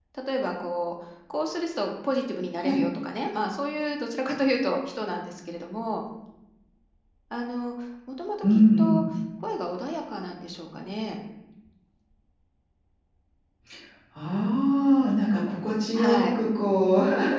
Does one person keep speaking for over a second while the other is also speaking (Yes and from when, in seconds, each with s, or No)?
No